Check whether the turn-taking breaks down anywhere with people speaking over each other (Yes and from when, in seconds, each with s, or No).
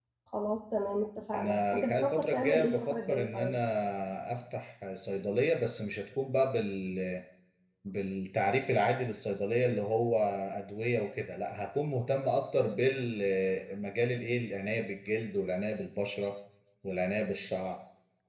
Yes, from 1.3 s